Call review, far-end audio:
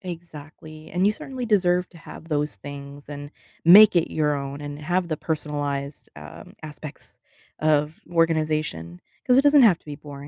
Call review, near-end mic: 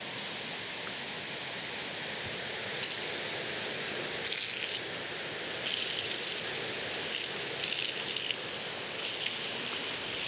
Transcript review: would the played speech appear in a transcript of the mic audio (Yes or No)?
No